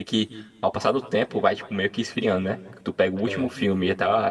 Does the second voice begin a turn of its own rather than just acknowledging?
No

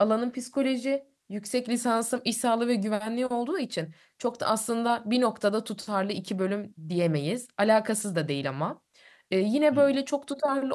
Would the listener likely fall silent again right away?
Yes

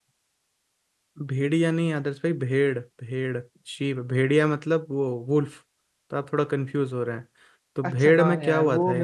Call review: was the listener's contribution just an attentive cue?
No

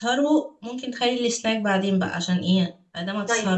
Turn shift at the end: Yes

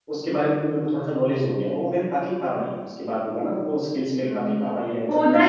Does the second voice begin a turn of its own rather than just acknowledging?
Yes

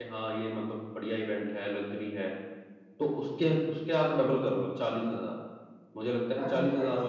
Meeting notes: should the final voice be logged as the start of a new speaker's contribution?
Yes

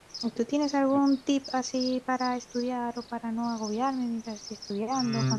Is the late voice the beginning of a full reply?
Yes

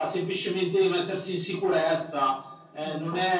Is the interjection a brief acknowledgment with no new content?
Yes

